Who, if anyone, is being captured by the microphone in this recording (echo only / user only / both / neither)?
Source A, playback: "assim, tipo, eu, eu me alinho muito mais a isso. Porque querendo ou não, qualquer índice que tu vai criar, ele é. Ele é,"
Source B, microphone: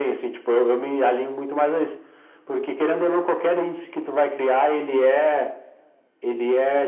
echo only